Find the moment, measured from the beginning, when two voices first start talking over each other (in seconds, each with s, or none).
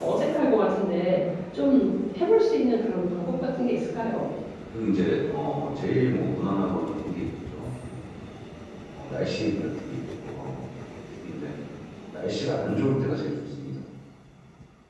none